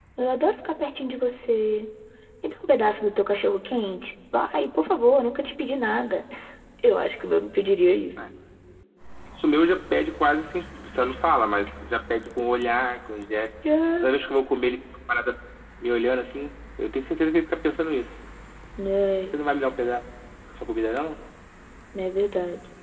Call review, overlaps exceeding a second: none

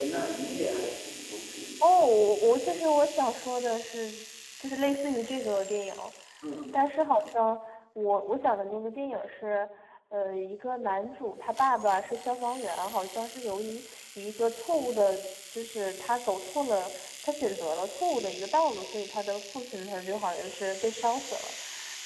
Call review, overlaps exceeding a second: none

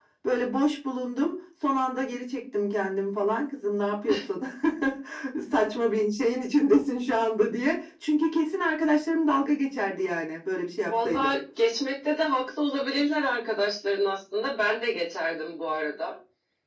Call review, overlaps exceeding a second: none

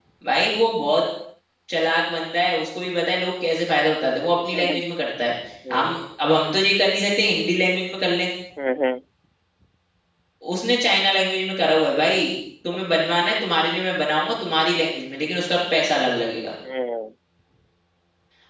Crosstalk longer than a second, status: none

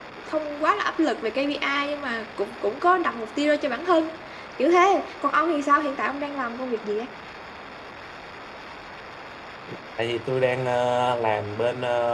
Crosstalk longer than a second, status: none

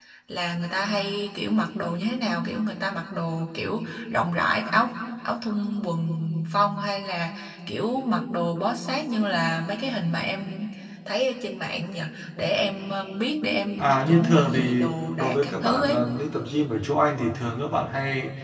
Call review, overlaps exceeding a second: present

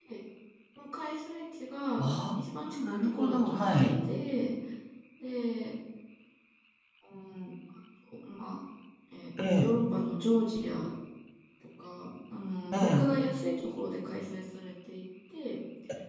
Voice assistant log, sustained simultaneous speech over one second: present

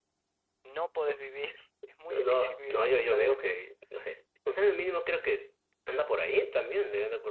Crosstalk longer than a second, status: present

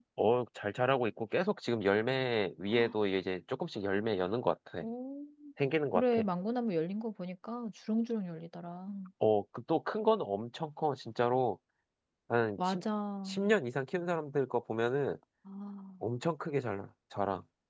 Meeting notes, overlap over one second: none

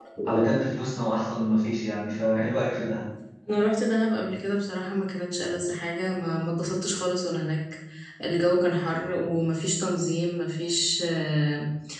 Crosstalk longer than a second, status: none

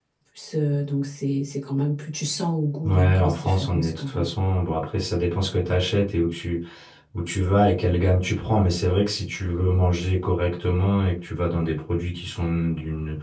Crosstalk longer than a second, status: present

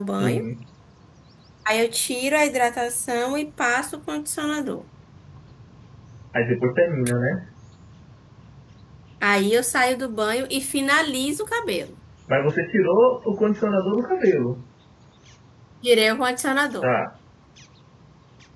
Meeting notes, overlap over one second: none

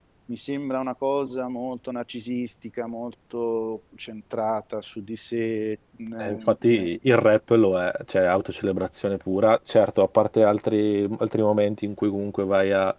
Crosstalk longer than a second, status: none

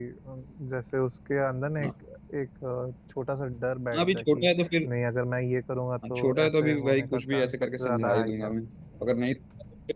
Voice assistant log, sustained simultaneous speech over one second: present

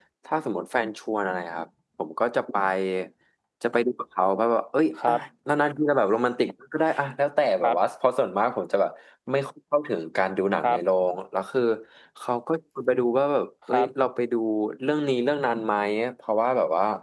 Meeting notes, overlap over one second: none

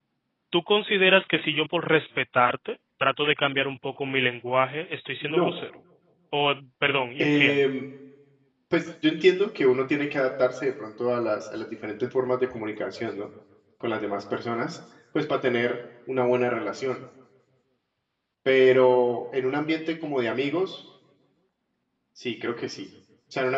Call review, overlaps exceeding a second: none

